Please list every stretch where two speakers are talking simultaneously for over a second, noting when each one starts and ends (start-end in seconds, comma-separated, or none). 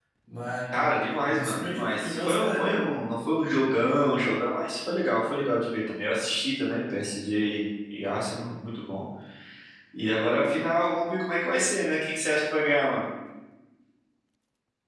1.2-2.9